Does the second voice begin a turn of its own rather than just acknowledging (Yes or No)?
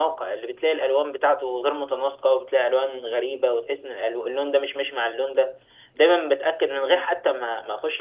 No